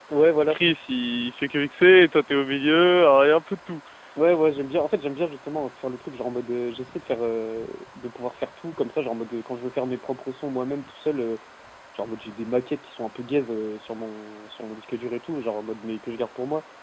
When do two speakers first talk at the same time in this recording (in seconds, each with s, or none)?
none